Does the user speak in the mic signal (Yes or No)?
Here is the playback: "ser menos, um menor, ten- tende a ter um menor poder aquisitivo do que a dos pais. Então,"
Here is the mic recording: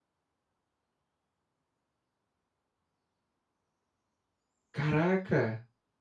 Yes